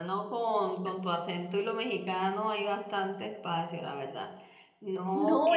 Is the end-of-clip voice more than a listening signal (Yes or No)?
Yes